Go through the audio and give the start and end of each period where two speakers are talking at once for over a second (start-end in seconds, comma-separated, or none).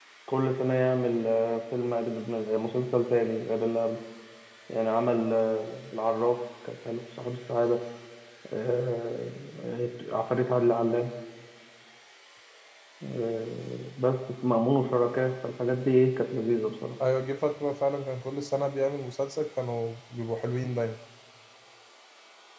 none